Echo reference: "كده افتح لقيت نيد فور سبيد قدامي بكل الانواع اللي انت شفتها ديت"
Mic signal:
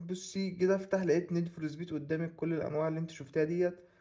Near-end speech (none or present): none